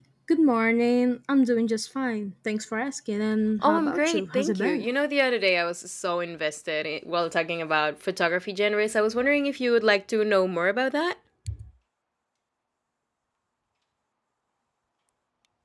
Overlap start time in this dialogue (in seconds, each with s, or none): 3.6 s